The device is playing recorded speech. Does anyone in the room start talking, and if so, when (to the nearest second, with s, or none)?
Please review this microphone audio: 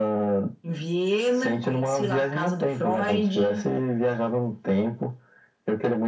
none